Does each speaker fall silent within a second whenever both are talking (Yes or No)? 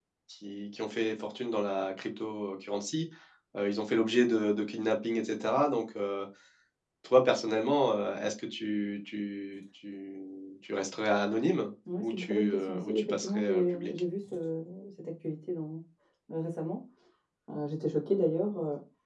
No